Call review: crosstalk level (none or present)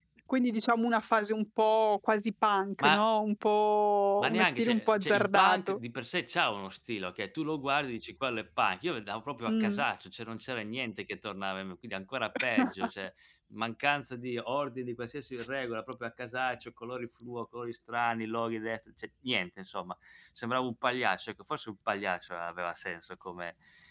present